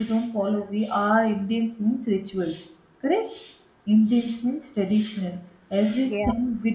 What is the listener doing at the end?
listening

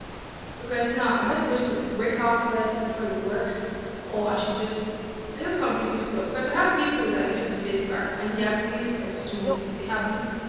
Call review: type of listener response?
listening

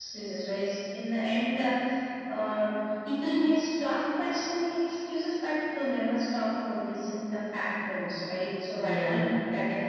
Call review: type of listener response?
listening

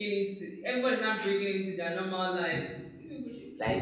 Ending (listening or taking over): taking over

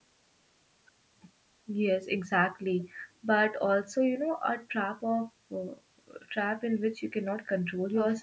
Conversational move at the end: taking over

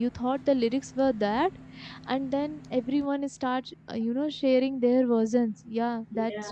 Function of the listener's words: listening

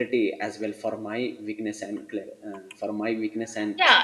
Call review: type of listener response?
taking over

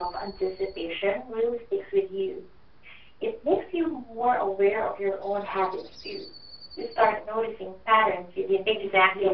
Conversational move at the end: taking over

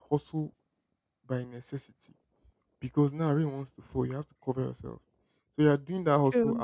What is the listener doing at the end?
listening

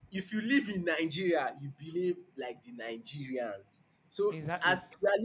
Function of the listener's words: listening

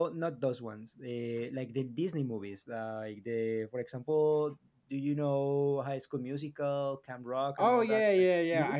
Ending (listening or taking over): taking over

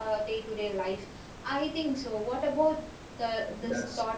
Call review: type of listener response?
taking over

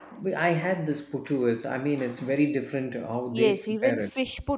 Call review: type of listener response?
taking over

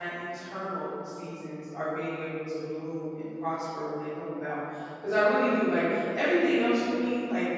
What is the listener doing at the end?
listening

